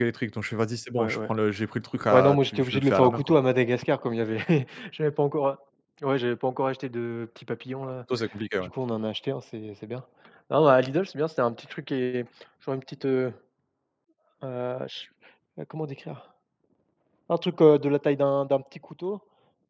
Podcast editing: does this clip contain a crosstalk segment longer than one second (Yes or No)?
Yes